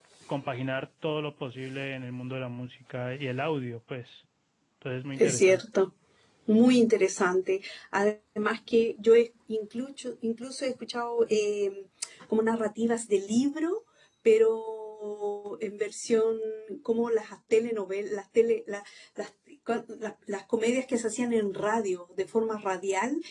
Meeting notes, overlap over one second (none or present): none